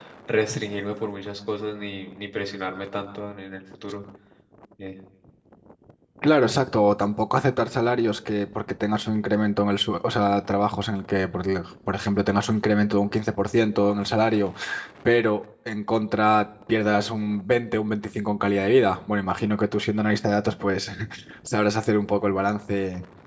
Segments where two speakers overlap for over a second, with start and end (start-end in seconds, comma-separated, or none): none